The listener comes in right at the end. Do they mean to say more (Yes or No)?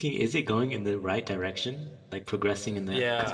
Yes